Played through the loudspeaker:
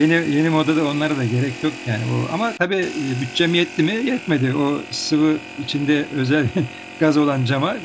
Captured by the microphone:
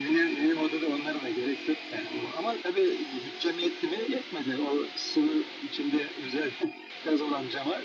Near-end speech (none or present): none